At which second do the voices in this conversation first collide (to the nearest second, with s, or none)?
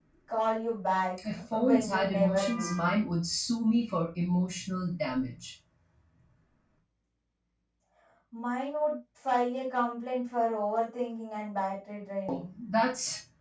1 s